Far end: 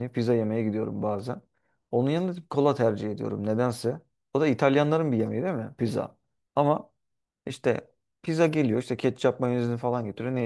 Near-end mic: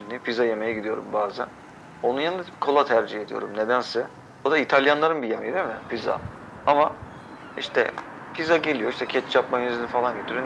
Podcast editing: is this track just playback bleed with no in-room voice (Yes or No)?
Yes